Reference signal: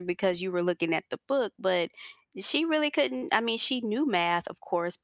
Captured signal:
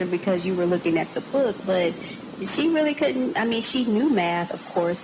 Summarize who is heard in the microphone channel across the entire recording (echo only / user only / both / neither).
echo only